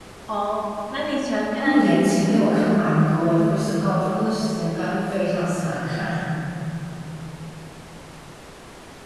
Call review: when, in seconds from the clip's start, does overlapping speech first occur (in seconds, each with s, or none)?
1.6 s